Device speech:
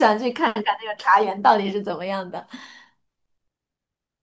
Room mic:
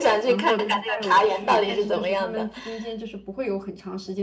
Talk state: both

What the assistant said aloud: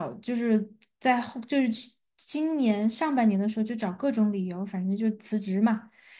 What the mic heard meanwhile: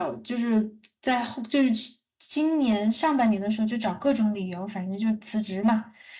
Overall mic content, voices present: echo only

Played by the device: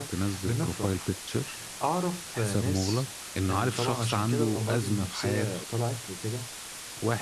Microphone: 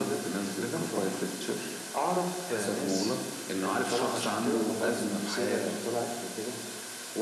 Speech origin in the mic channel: echo only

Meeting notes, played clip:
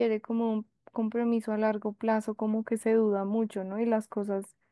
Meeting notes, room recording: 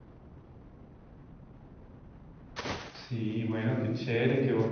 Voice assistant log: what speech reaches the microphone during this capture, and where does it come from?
user only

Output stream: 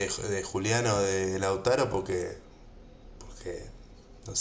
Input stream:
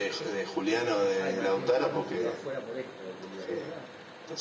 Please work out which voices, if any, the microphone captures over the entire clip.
both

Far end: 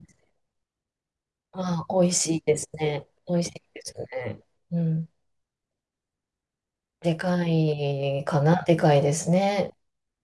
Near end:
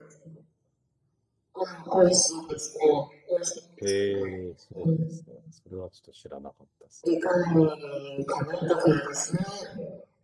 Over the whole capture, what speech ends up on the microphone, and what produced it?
both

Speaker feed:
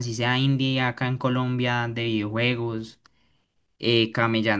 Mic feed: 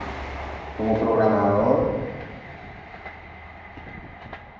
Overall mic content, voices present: user only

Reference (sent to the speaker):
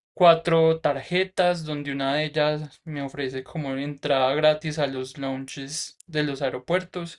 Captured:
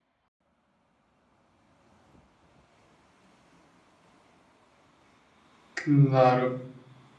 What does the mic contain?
user only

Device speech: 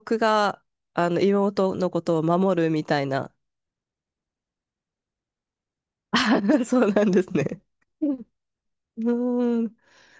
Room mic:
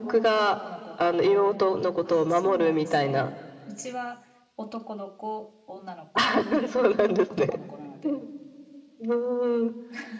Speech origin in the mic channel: both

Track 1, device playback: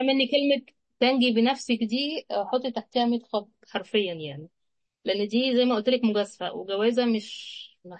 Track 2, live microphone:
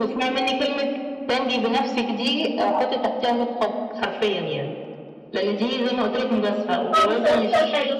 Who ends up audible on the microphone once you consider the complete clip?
both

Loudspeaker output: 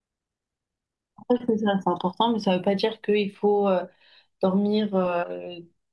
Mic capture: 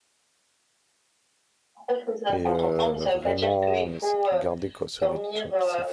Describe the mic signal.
both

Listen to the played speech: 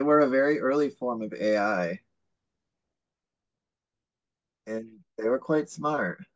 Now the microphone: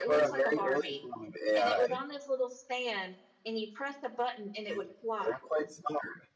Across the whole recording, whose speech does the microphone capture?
both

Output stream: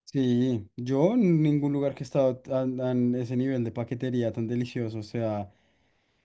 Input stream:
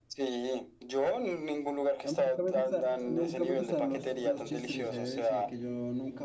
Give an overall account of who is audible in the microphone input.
both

